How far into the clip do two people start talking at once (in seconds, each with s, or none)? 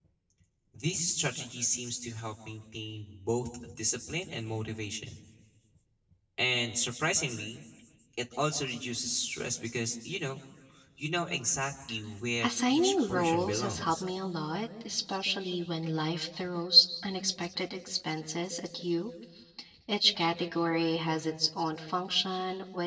12.4 s